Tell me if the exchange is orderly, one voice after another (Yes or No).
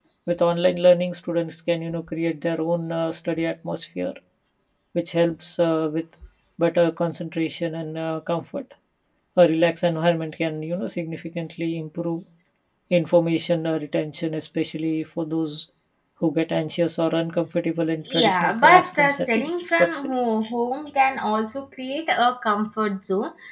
No